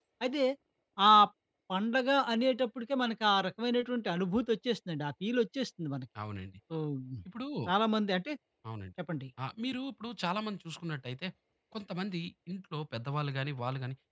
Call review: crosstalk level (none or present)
none